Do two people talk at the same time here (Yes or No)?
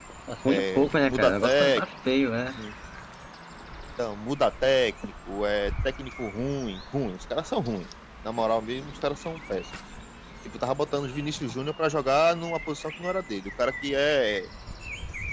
Yes